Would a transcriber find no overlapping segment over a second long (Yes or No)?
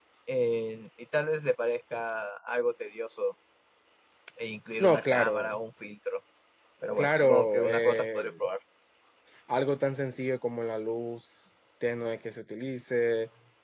No